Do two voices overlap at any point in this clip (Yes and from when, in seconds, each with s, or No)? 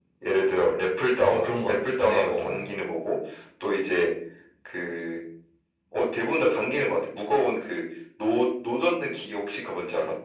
Yes, from 1.2 s